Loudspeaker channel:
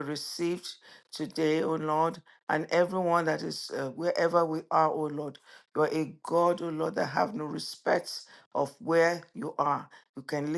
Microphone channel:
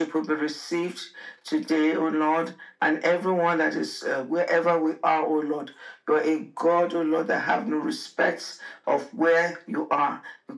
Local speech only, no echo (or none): none